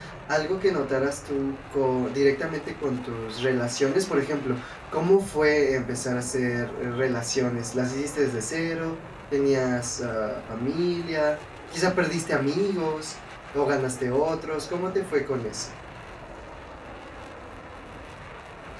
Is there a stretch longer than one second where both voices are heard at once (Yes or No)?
No